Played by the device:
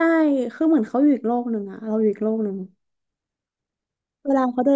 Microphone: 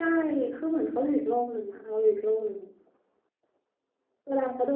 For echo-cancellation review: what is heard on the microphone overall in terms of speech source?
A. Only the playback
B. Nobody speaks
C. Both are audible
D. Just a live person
A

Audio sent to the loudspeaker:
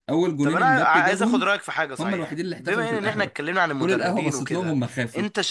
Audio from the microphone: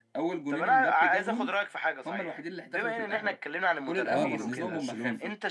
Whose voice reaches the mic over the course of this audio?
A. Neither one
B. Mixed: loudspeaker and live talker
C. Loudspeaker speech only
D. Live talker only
B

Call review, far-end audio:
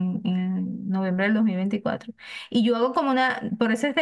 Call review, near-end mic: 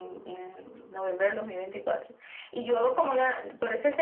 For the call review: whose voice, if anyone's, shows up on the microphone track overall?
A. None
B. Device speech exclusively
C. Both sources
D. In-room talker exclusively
B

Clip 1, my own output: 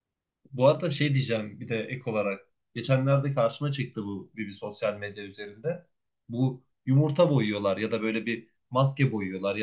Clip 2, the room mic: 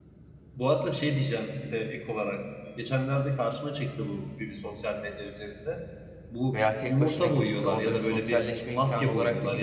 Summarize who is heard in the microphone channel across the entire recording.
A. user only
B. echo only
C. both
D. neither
C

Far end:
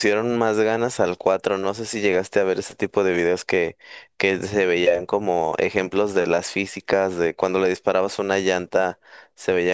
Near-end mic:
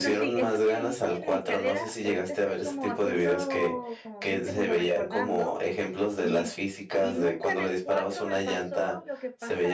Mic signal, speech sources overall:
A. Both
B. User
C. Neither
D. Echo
A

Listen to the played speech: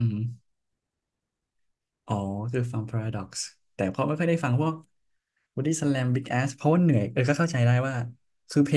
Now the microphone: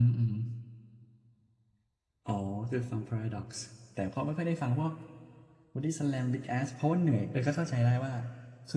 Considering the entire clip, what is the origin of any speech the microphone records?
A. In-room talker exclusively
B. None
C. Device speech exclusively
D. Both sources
C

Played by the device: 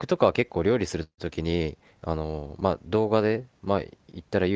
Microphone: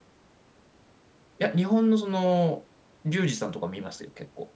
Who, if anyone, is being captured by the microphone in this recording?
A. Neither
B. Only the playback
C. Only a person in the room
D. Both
C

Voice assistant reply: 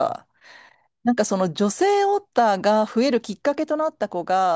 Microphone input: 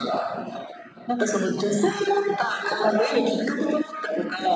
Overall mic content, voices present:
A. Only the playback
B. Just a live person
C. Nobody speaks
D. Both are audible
A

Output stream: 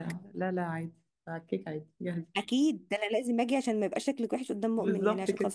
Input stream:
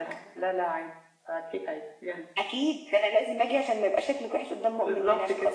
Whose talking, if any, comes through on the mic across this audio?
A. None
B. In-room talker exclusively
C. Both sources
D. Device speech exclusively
D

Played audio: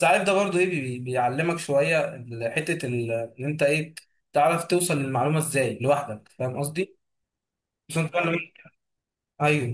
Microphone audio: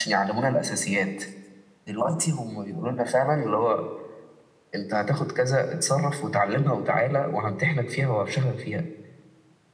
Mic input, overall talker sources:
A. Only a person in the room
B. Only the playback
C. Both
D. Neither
A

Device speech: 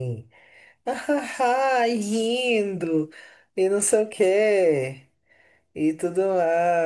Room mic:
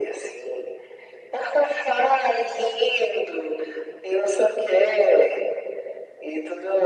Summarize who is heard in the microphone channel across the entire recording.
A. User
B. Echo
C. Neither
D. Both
B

